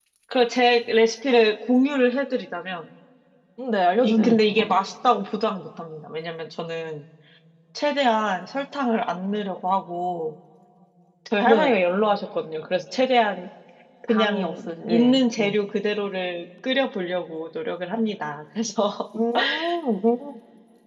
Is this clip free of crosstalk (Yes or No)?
No